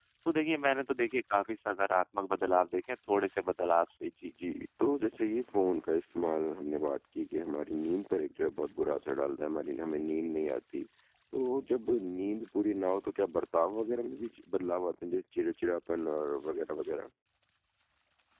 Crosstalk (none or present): none